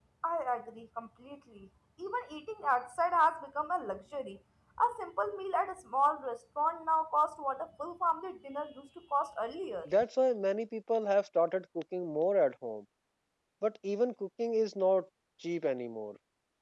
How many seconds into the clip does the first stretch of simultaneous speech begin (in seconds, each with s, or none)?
none